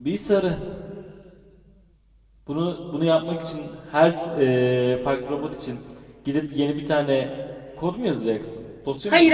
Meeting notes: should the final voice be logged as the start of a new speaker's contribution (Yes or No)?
Yes